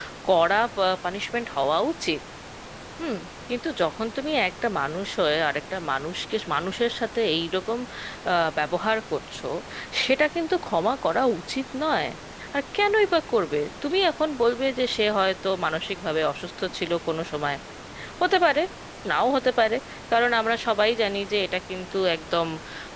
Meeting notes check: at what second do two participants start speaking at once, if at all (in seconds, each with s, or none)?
none